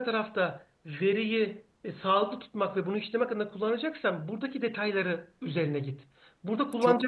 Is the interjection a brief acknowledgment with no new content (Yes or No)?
Yes